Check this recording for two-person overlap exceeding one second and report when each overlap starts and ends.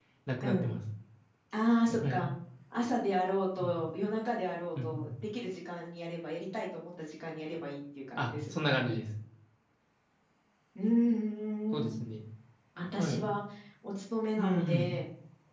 none

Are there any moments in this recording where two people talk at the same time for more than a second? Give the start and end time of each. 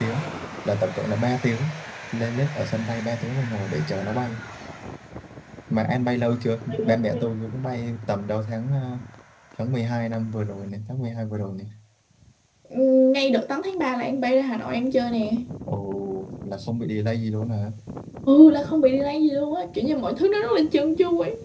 none

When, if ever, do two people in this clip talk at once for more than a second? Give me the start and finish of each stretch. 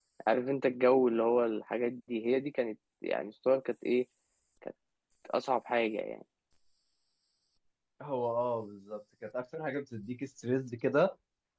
none

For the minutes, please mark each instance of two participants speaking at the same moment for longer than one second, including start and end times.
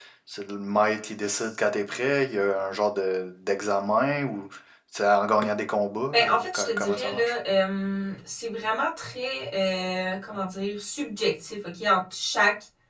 6.1-7.3

